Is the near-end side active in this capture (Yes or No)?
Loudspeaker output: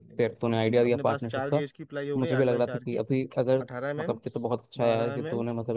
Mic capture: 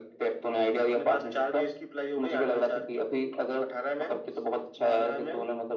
No